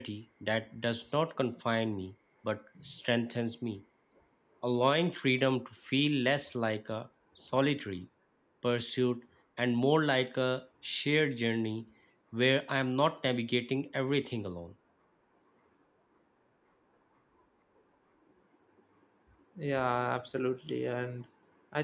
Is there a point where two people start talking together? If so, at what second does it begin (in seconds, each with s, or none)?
none